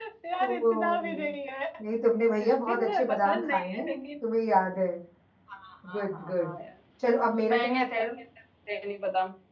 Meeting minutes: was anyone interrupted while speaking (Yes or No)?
Yes